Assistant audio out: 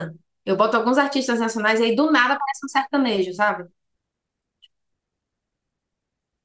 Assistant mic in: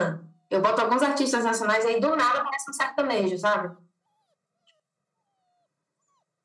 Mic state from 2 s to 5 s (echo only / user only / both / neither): echo only